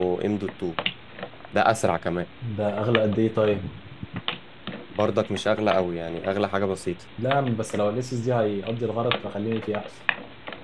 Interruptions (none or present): none